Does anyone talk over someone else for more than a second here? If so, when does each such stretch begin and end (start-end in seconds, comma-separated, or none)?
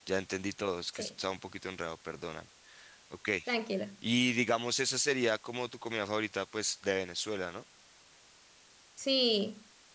none